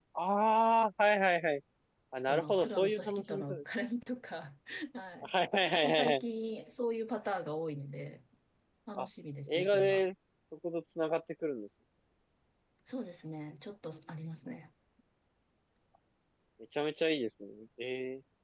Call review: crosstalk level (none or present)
present